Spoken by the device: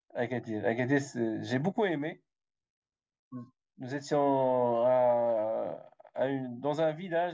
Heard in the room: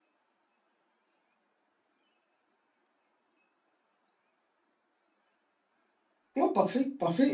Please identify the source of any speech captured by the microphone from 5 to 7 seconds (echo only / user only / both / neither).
user only